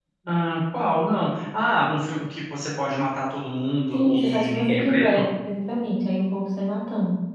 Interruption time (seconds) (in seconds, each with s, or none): 3.9 s